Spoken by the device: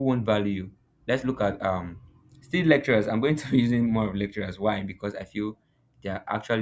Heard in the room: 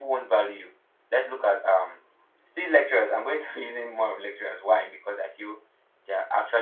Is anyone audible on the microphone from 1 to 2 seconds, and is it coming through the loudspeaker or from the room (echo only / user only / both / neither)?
echo only